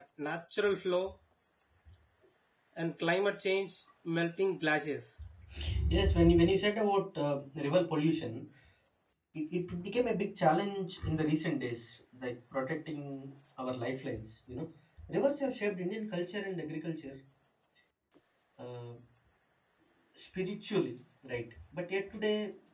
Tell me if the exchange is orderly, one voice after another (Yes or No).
Yes